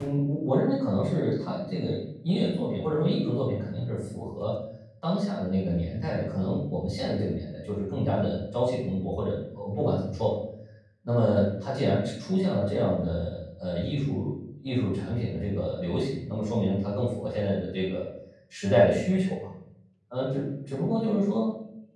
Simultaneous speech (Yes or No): No